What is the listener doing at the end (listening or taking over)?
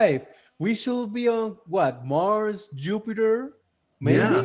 taking over